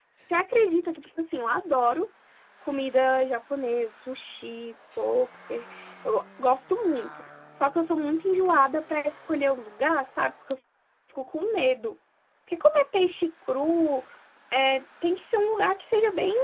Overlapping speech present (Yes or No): No